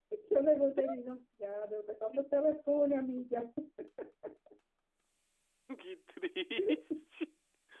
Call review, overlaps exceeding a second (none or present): none